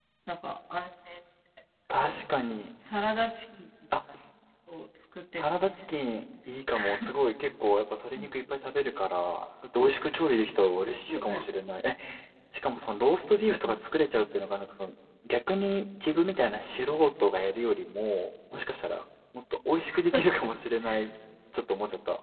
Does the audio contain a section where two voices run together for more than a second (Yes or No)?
No